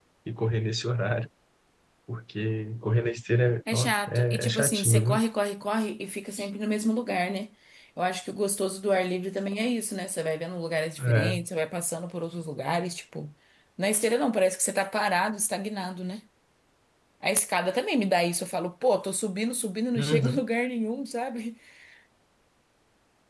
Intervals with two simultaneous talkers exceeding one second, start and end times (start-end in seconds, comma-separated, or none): 3.7-5.2